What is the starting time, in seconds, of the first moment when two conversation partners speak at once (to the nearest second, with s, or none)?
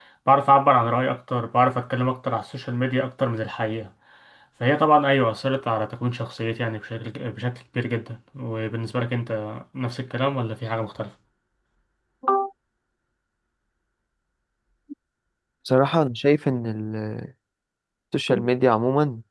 none